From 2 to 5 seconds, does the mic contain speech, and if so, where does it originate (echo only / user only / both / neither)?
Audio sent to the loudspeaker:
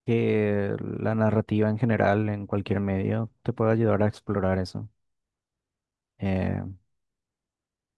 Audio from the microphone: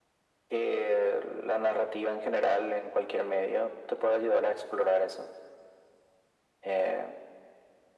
echo only